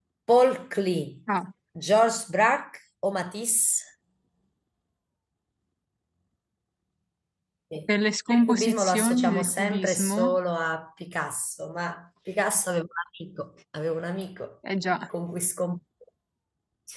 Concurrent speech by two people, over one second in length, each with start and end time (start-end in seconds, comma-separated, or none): 8.4-10.4